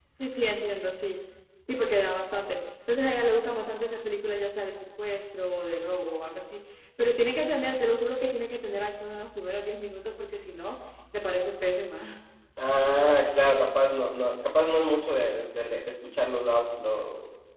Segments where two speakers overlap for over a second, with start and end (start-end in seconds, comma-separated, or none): none